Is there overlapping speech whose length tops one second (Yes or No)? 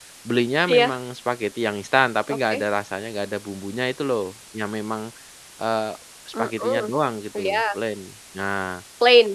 No